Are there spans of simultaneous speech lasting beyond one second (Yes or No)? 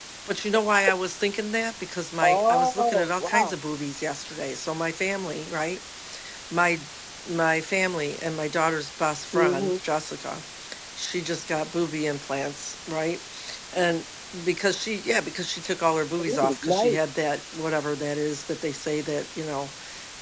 Yes